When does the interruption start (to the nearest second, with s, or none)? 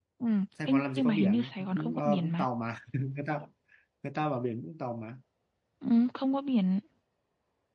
1 s